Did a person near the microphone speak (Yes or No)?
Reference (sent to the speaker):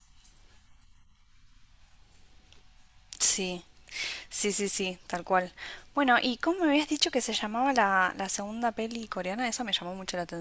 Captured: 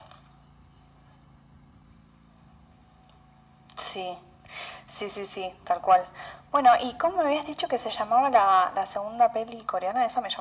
No